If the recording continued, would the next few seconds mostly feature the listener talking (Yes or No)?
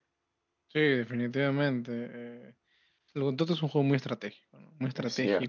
No